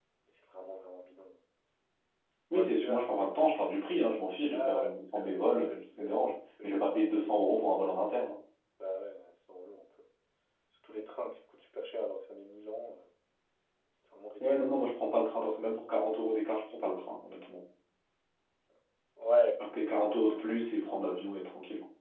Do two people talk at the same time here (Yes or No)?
Yes